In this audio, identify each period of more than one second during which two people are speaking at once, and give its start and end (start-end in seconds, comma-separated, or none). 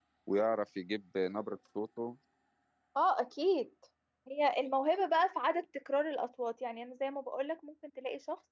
none